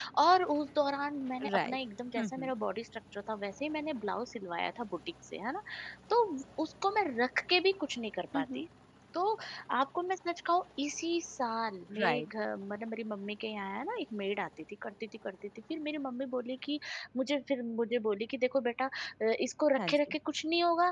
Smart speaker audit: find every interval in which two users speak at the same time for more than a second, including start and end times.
none

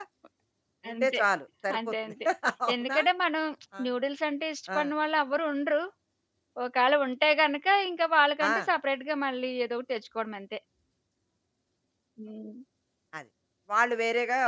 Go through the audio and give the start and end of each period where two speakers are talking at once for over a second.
none

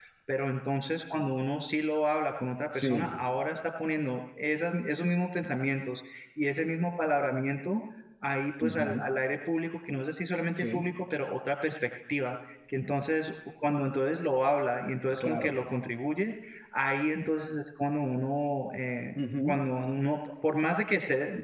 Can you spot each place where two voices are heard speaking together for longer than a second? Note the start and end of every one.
none

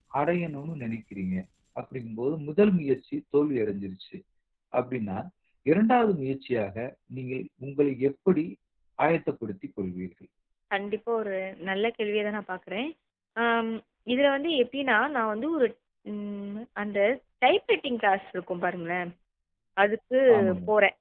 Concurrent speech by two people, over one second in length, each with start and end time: none

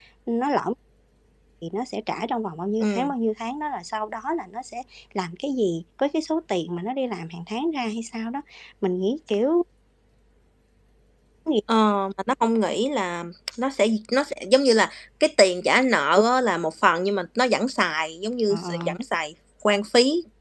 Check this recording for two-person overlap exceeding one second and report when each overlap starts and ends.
none

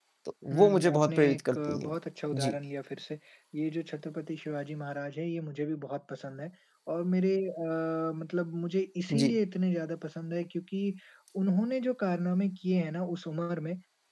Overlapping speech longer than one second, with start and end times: 0.5-1.9

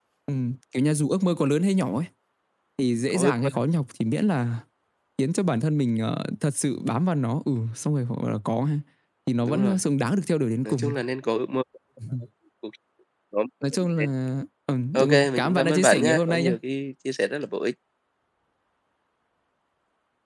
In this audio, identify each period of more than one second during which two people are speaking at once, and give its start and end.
14.9-16.5

